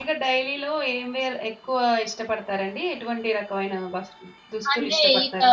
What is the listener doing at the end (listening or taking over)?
taking over